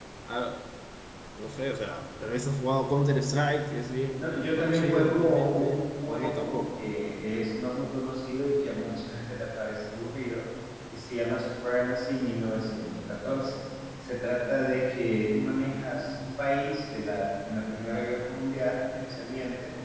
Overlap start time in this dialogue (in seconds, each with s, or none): 4.2 s